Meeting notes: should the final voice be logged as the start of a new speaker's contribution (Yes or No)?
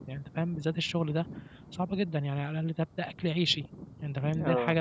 No